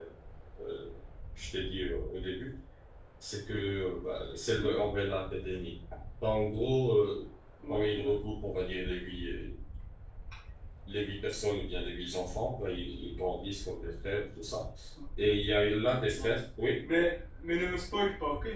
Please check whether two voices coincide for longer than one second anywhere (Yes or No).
No